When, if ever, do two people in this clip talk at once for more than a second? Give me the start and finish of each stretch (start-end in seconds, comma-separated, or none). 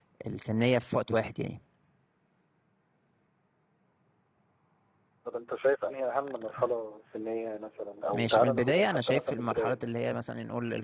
8.1-9.8